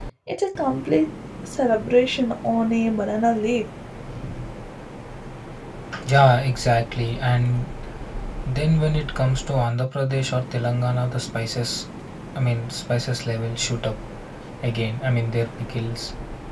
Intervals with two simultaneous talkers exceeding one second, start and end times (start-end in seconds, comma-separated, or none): none